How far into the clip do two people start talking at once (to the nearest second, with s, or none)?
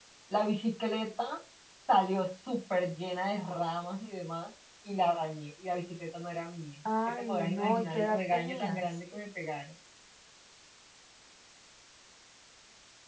7 s